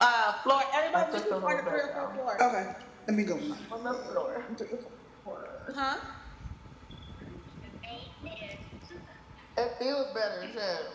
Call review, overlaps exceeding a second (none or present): present